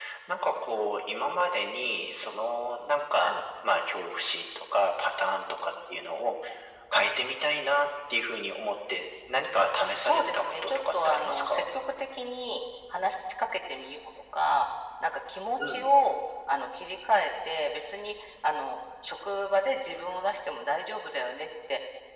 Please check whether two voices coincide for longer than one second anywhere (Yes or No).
Yes